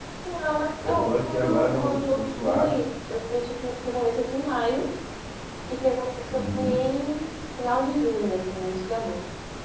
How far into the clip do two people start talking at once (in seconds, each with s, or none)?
0.8 s